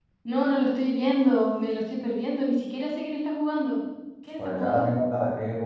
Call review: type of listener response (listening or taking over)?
taking over